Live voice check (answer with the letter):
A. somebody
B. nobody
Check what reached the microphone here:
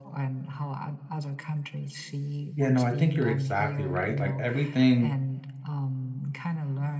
A